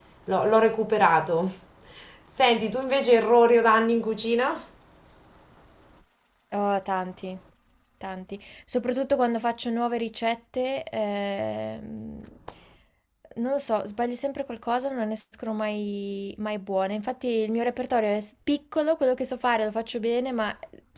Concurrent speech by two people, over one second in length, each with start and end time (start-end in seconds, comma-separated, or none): none